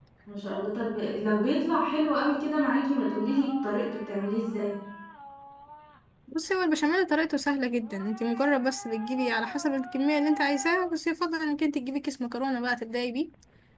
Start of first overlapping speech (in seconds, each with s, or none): none